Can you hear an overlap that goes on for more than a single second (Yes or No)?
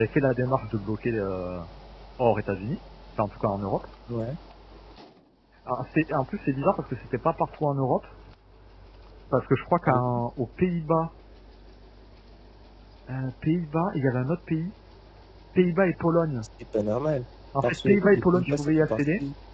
Yes